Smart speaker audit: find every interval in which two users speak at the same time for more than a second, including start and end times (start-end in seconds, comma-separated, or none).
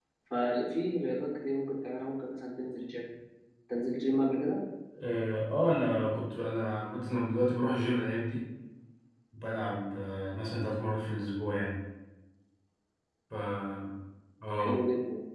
none